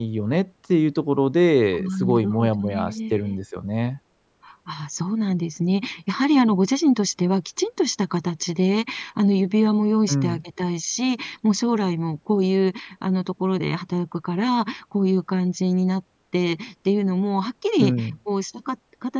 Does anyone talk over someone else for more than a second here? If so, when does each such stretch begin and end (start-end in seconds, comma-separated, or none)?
1.7-3.4